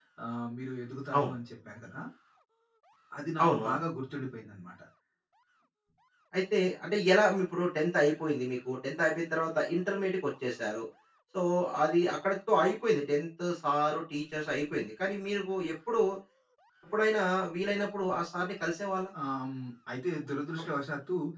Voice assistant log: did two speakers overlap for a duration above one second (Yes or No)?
No